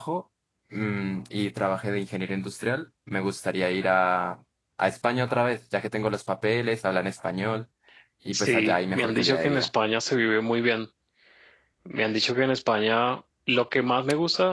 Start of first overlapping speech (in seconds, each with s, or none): 8.3 s